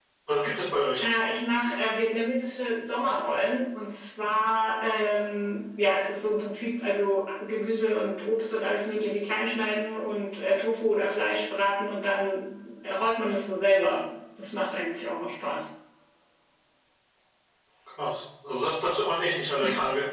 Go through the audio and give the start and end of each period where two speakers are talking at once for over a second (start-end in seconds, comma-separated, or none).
none